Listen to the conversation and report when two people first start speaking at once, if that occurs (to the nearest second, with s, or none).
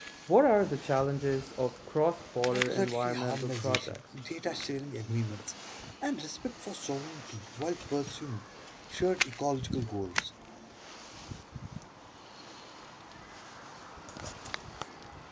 2 s